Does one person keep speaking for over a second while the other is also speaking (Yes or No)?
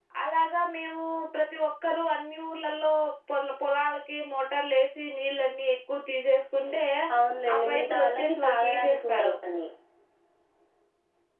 Yes